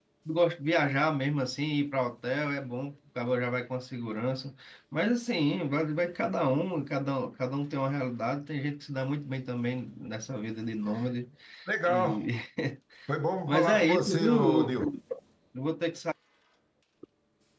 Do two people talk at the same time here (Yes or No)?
Yes